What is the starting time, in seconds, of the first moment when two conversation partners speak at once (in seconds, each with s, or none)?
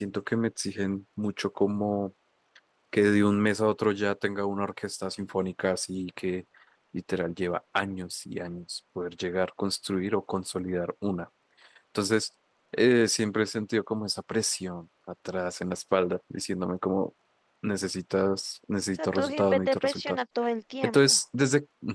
18.9 s